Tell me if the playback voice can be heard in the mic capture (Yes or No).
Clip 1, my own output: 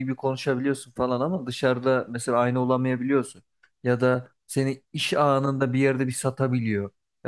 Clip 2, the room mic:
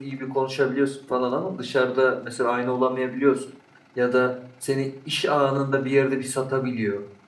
Yes